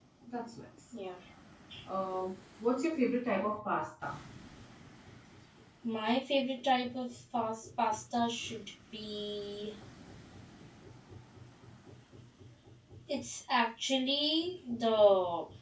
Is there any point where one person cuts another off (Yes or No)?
No